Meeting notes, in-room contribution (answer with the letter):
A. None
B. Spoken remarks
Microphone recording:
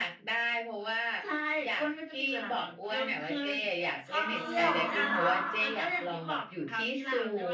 B